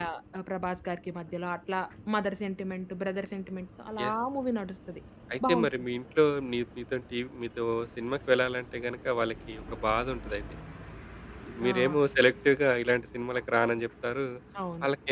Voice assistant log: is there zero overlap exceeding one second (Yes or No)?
Yes